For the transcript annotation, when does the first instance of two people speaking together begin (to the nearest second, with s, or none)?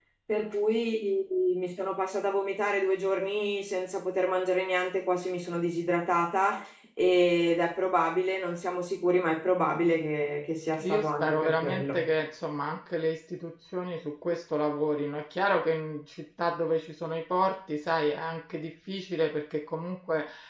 11 s